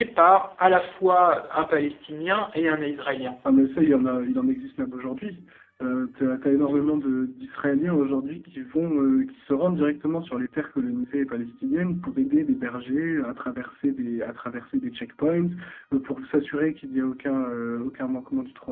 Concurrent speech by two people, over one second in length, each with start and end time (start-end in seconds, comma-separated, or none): none